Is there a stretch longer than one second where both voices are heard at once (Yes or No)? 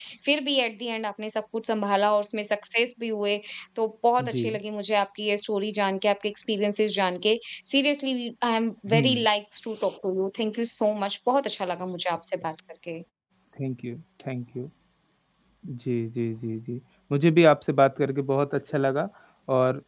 No